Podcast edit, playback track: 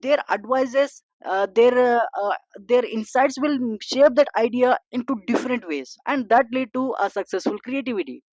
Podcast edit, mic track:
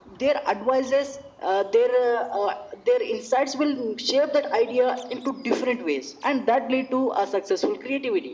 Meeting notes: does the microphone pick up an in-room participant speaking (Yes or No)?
No